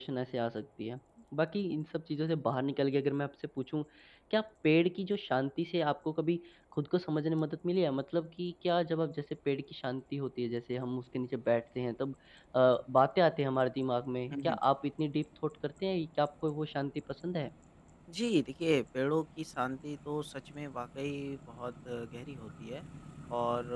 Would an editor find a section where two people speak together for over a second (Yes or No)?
No